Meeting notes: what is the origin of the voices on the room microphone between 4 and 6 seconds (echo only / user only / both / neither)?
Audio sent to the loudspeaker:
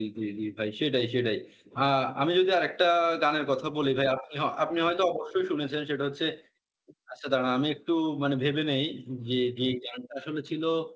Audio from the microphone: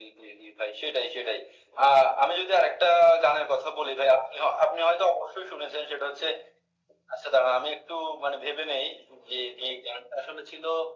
echo only